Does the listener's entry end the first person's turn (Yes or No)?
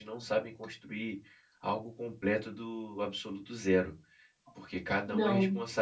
No